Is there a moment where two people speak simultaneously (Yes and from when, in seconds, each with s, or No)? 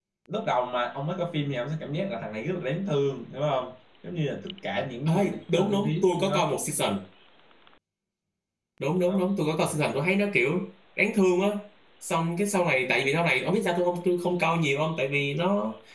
Yes, from 5.1 s